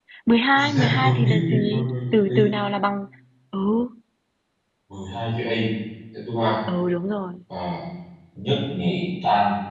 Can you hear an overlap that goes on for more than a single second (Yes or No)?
Yes